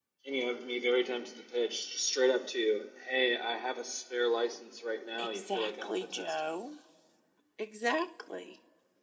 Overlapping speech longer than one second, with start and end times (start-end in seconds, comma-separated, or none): 5.2-6.4